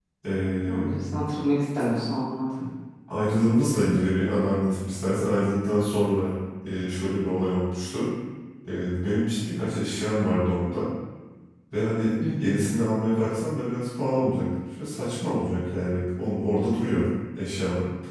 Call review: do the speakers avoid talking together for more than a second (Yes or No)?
Yes